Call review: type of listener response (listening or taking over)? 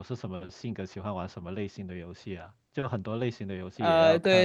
taking over